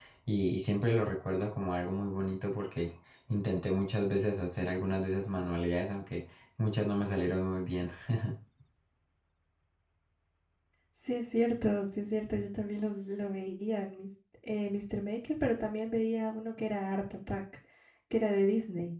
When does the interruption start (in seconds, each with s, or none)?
none